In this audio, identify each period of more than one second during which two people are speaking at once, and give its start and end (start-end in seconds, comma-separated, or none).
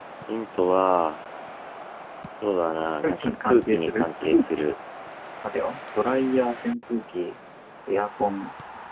3.0-4.7